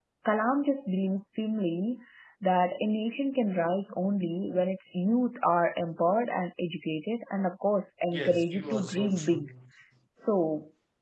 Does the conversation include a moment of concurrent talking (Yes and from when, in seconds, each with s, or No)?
Yes, from 8.1 s